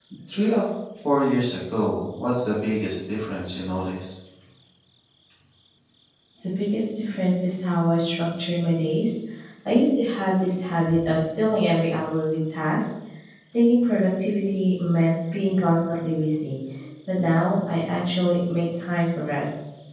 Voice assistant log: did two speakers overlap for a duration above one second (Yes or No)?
No